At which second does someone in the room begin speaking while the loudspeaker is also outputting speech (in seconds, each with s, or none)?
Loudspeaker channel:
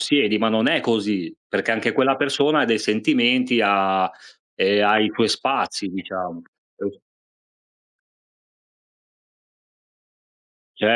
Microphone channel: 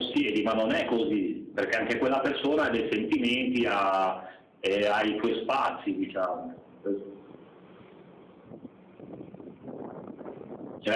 none